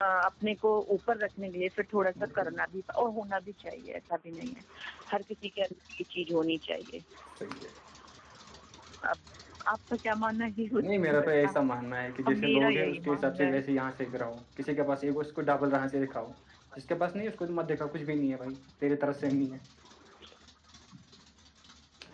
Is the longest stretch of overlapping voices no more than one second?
No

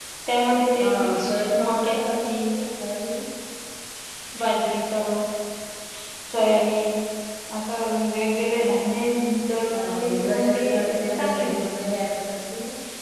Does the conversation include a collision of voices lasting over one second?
Yes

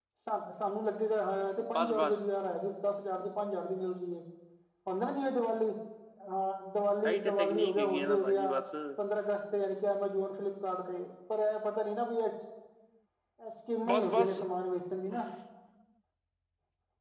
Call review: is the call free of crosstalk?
No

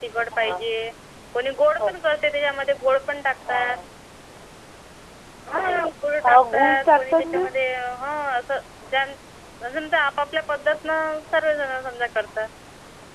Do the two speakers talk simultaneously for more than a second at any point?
Yes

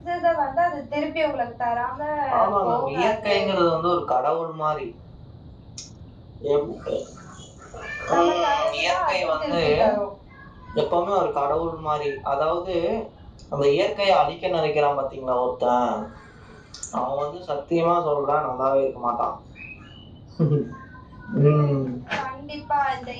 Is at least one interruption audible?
Yes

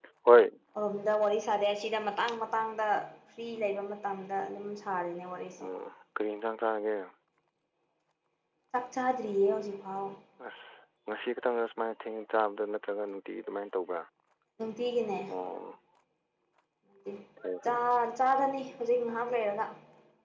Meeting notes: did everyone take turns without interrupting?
Yes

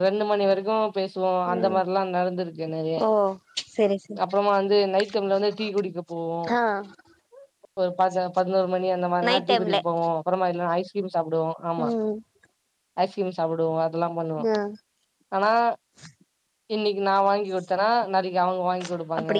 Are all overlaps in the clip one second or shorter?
Yes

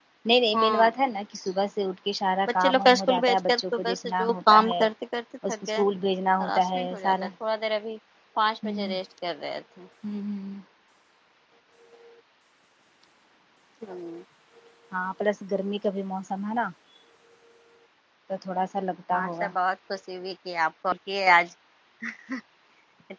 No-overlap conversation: No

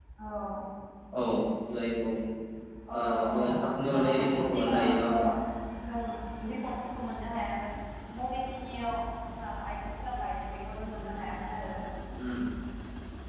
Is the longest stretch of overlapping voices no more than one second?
No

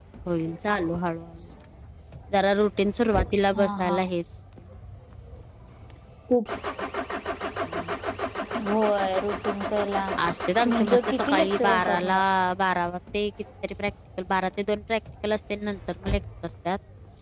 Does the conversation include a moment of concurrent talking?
Yes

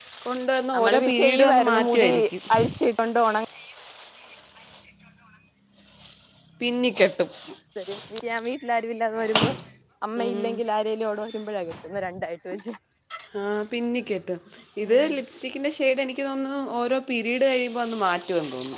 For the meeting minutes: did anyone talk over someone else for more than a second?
Yes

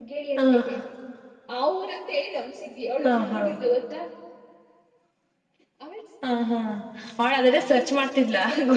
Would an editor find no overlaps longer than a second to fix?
Yes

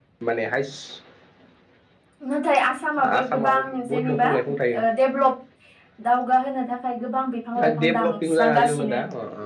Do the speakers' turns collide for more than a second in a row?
Yes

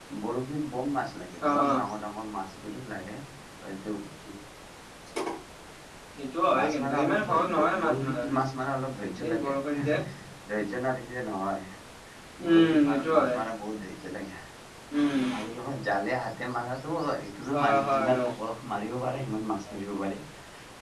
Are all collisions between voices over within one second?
No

